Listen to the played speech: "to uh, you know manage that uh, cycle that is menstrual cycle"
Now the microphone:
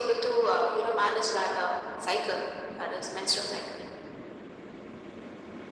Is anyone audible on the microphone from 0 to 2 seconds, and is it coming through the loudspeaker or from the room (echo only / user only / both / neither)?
echo only